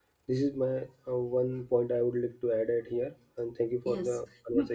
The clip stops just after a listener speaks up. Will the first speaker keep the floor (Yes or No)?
No